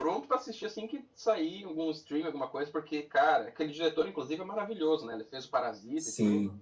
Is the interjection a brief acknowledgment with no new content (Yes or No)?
No